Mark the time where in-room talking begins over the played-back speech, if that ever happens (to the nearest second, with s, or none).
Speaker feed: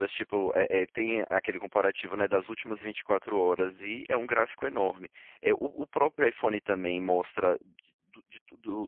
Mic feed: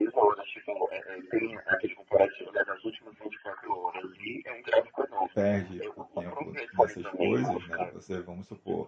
5 s